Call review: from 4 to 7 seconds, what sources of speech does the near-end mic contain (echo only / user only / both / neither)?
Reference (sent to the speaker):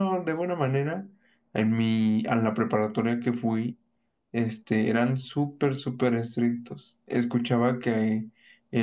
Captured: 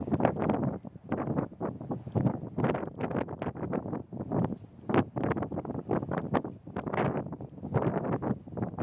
neither